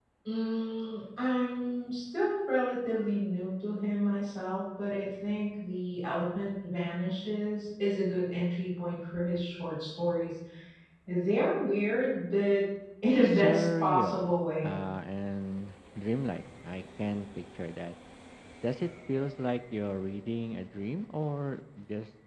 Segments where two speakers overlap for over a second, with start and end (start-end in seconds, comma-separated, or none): 13.2-14.8